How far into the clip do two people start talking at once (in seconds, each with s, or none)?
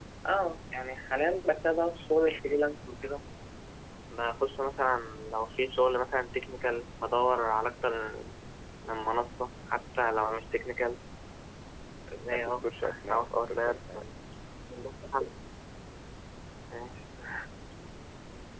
12.3 s